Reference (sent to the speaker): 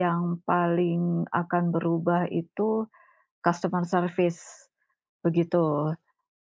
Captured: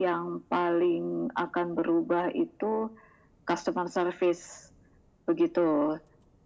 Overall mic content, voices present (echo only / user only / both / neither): echo only